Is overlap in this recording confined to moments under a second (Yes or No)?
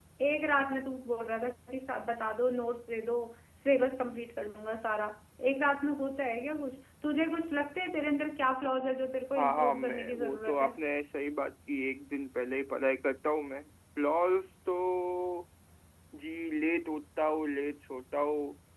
No